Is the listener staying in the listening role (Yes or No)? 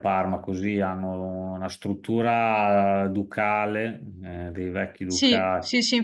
No